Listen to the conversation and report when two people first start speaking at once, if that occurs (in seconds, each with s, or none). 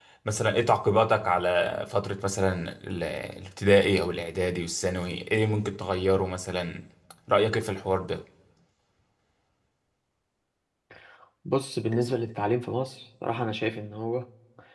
none